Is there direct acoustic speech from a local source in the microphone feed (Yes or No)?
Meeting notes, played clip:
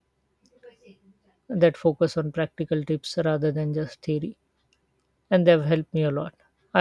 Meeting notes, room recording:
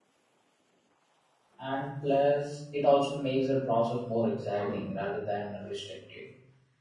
Yes